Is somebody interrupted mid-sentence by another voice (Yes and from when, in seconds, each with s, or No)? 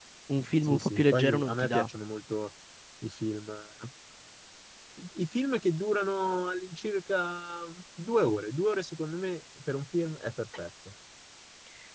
Yes, from 0.6 s